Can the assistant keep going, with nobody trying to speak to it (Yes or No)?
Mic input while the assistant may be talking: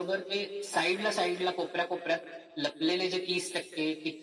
Yes